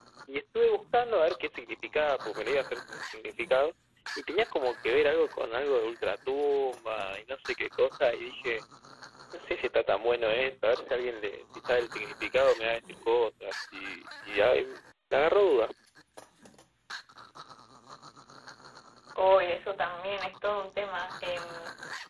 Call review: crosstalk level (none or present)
none